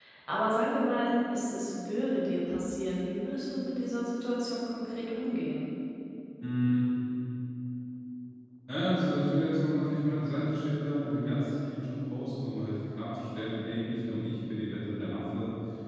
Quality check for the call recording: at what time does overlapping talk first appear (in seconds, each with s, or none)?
none